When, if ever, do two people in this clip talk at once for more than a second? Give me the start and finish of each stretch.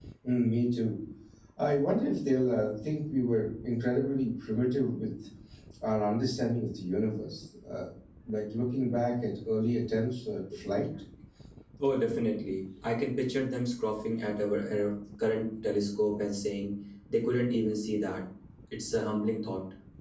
none

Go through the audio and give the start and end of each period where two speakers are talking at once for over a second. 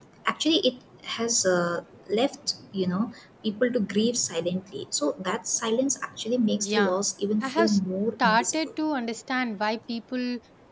none

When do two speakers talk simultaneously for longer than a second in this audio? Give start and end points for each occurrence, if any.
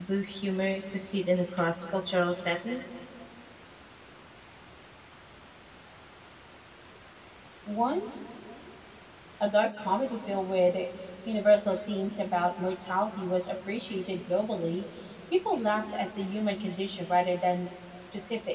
none

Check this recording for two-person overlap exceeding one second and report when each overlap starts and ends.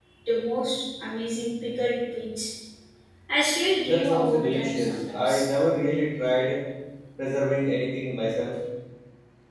3.8-5.4

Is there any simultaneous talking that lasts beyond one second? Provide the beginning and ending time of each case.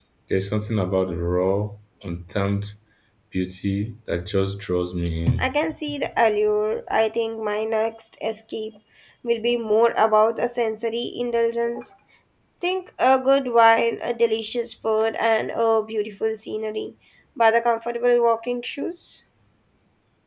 none

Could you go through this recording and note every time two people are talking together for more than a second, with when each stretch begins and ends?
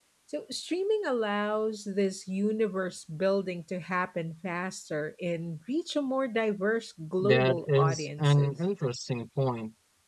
7.2-8.5

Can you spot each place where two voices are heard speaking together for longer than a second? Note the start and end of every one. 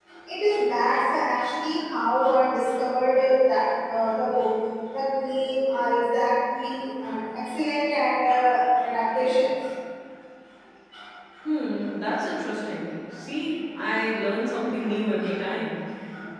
none

